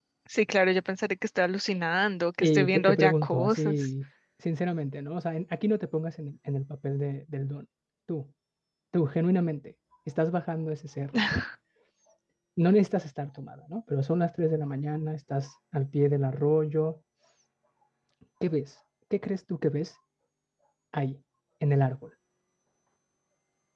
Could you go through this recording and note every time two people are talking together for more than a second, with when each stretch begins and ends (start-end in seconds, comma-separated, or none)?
2.4-3.8